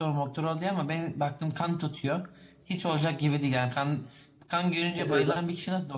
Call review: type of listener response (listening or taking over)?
listening